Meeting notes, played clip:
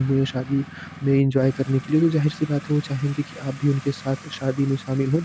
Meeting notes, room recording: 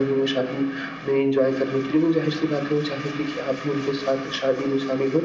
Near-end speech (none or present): none